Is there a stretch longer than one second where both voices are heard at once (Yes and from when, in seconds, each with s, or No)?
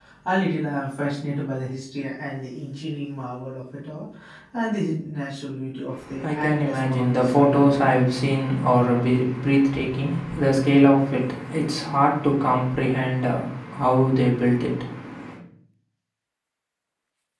Yes, from 6.2 s